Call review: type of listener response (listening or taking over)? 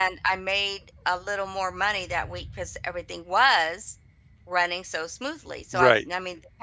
listening